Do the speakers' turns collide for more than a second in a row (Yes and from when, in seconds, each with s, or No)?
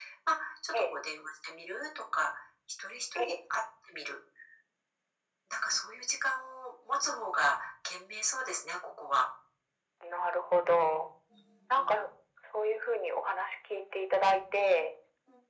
No